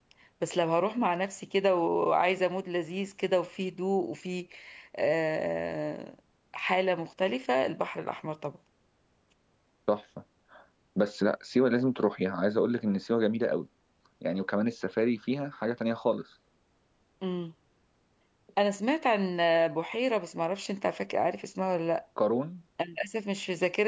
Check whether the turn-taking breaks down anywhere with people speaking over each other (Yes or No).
No